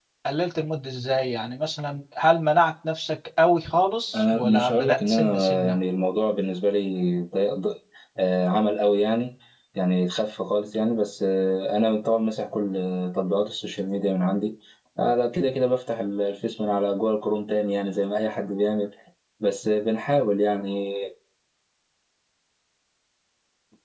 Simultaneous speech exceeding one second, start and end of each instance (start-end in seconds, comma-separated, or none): 4.2-5.8